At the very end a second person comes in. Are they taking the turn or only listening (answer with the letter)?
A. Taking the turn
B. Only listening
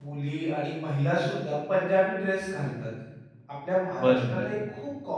B